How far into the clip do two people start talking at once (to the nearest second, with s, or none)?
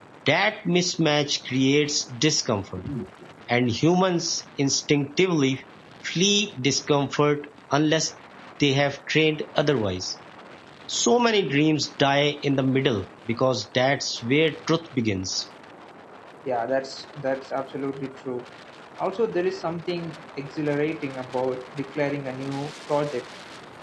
none